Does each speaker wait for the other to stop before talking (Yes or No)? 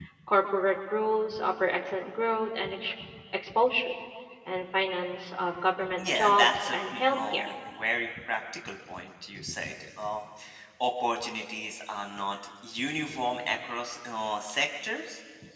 No